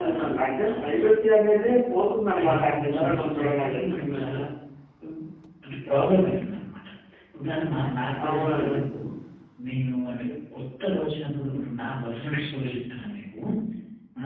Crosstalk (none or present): present